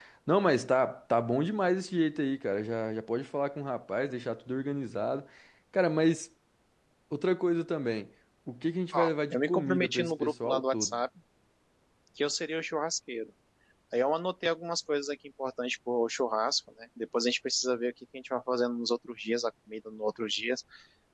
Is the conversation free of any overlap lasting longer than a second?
No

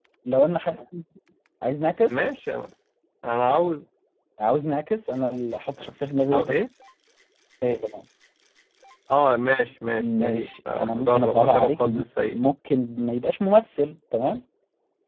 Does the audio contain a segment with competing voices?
Yes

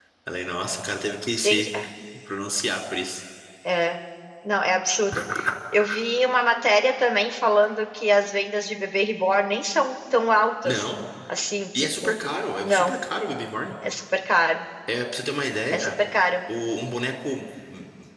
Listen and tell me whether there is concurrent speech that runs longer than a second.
No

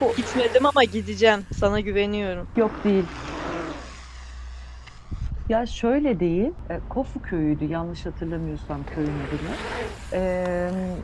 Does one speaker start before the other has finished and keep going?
No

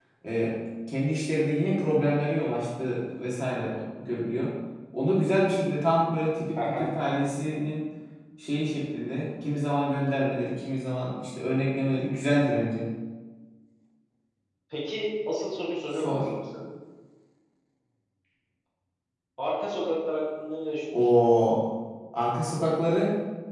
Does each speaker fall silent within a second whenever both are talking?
Yes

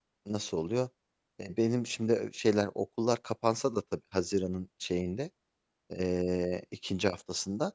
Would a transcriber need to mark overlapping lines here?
No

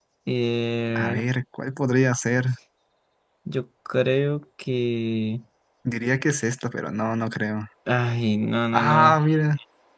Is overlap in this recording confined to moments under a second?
Yes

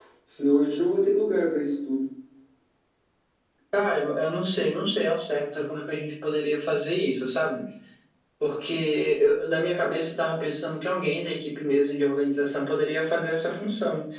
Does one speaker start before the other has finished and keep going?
No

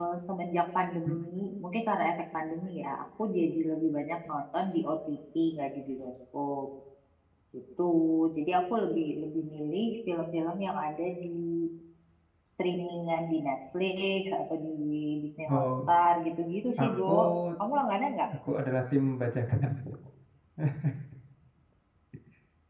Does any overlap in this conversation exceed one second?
No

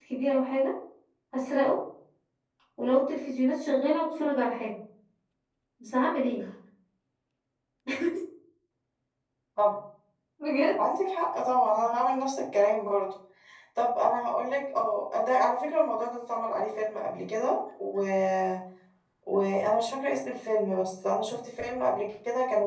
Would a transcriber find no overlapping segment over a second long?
Yes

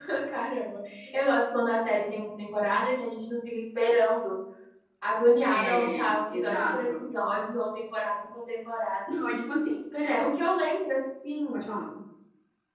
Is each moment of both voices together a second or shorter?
No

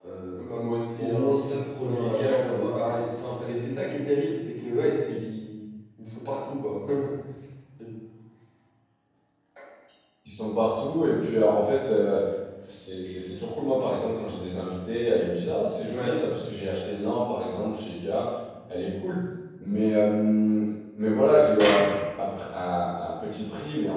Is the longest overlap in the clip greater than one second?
Yes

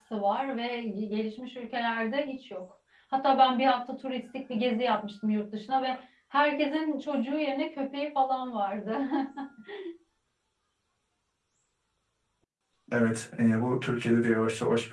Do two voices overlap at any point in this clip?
No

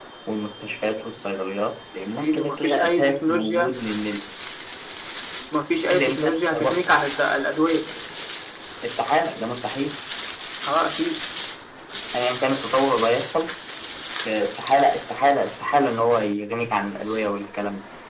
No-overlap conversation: No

